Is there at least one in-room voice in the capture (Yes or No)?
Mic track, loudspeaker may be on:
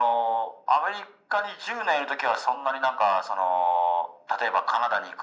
No